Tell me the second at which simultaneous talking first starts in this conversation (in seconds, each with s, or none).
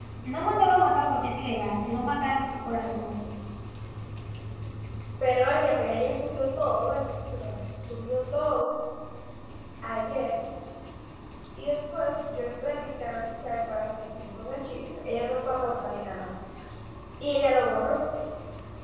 none